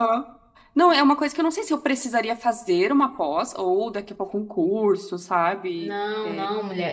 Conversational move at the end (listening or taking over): taking over